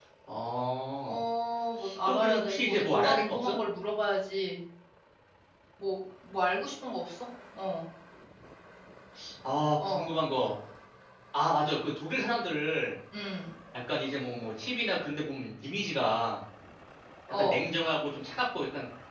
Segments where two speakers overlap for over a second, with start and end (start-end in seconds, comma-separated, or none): 2.0-3.5